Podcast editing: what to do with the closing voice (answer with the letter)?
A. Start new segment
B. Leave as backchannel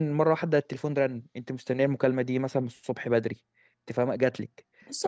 A